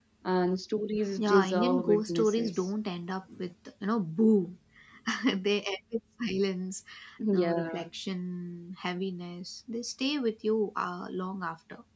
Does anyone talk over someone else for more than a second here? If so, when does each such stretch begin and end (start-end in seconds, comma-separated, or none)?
1.2-2.7